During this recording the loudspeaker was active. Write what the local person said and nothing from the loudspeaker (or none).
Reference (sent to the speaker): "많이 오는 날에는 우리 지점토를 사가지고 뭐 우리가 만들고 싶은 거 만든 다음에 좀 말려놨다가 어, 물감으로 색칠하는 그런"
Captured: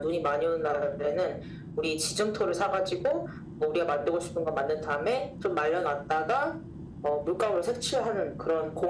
none